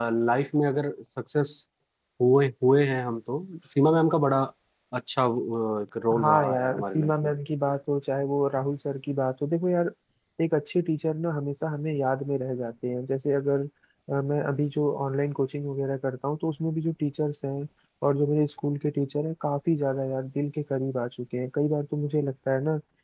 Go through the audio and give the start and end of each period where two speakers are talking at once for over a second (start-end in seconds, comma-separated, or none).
6.1-7.3